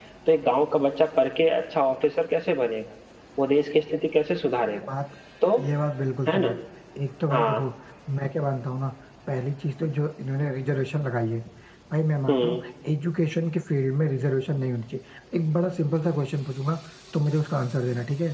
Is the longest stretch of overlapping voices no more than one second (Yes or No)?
Yes